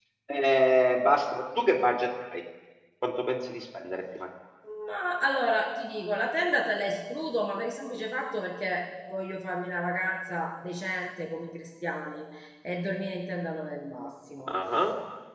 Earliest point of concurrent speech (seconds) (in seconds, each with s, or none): none